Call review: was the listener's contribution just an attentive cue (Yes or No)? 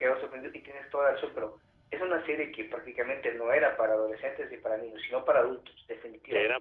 No